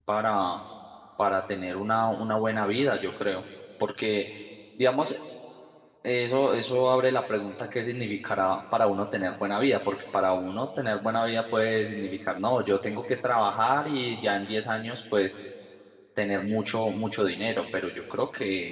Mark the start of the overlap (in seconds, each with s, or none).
none